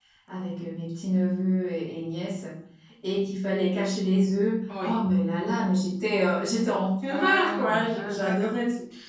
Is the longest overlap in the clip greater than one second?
Yes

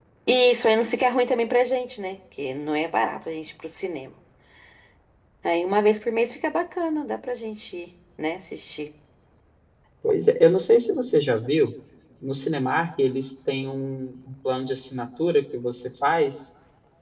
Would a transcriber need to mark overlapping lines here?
No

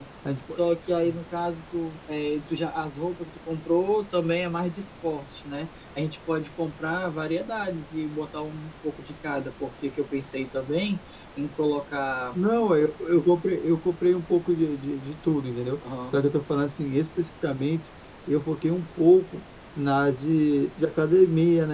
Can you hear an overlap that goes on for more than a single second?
No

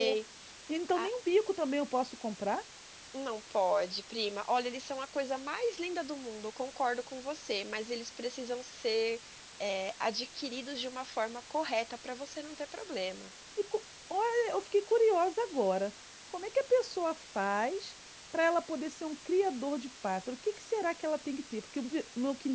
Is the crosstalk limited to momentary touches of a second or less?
Yes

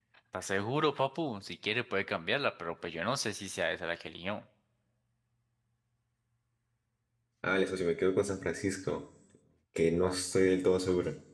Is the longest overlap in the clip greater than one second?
No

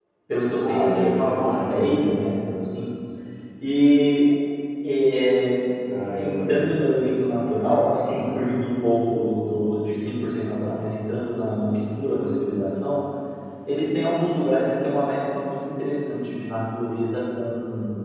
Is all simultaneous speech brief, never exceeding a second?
No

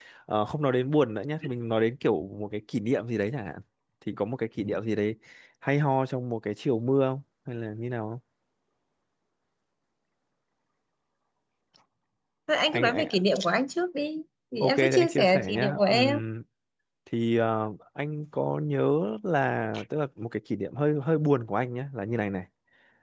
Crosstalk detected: Yes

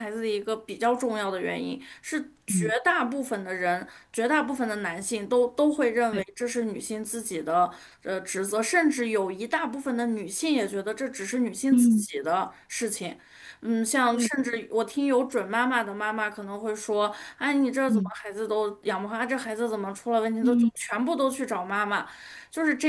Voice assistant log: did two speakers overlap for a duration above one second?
No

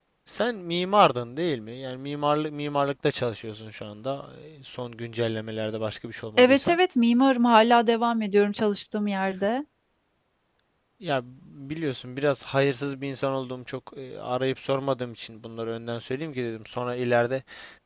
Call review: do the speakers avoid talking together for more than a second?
Yes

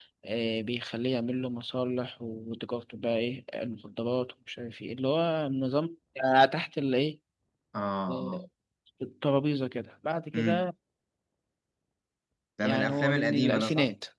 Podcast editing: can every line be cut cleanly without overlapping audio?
No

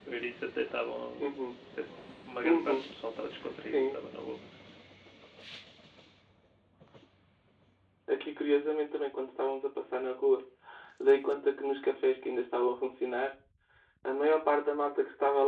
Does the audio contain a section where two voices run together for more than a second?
No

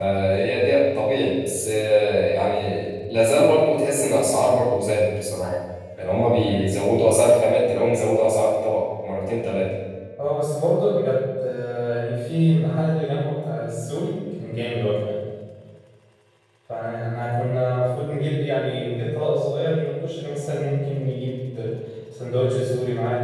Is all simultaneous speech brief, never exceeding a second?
Yes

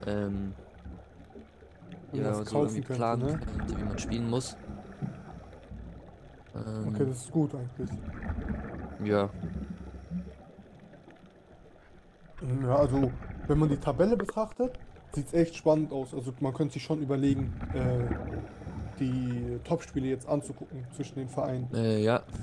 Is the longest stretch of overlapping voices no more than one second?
No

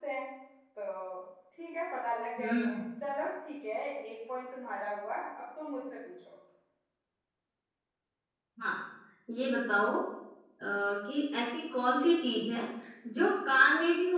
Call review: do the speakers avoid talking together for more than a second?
Yes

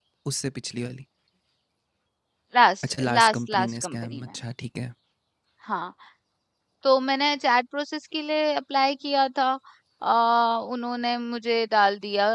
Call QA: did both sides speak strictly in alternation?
No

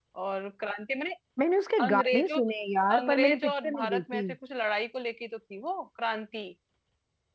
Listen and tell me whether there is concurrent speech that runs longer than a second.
Yes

